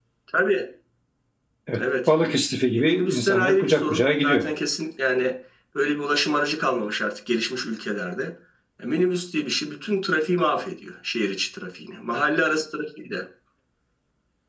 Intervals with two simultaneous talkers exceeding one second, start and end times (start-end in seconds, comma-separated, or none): 2.7-4.5